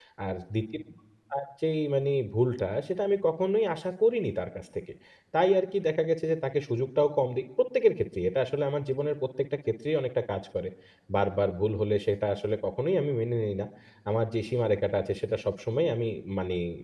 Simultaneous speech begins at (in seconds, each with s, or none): none